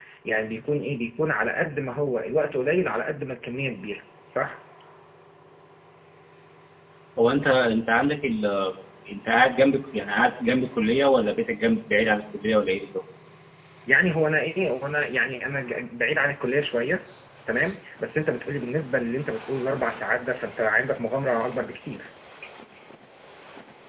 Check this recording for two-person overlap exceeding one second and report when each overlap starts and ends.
none

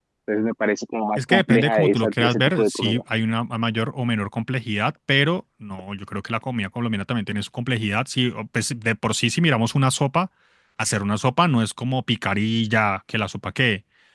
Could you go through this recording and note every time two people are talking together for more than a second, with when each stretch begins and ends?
1.2-3.0

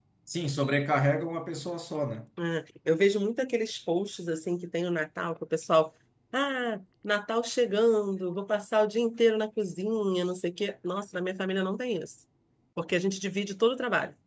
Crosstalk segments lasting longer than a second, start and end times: none

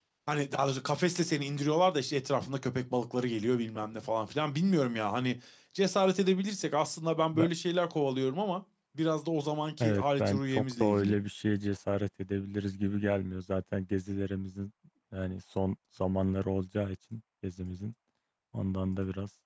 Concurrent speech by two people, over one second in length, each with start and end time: 9.8-11.2

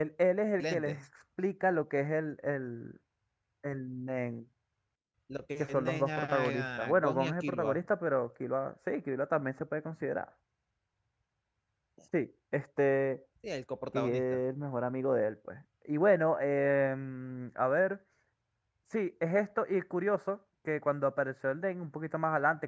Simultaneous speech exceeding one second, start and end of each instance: 5.6-7.8

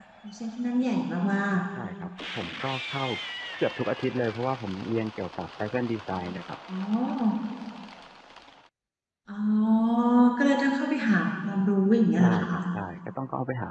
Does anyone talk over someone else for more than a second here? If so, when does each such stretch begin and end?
none

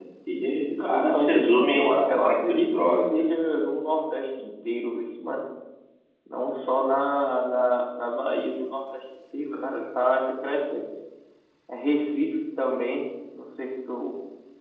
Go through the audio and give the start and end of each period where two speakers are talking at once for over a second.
0.8-3.1

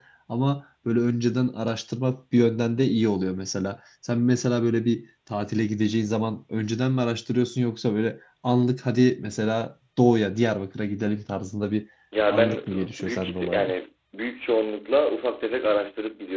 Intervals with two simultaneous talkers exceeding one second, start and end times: 12.3-13.7

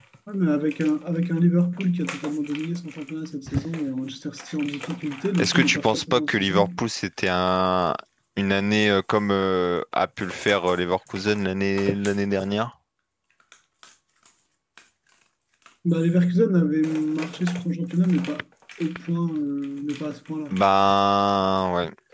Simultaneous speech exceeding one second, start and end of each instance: 5.4-6.7

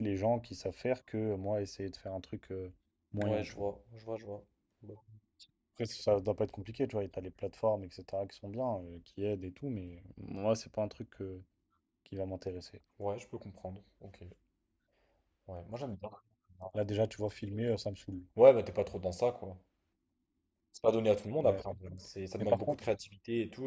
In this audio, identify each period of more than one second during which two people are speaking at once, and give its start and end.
none

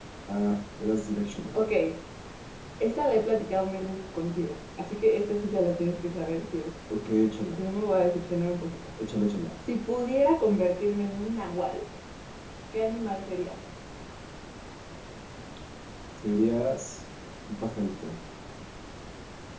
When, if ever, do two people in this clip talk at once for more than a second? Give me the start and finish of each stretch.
none

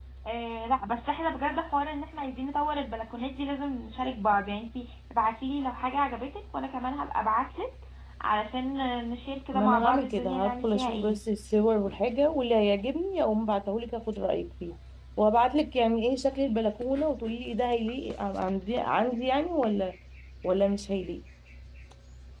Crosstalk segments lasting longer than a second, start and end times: 9.5-11.2

